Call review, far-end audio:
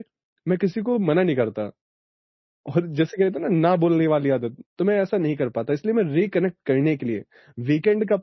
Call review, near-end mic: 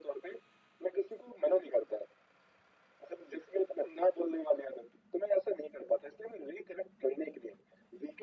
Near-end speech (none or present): none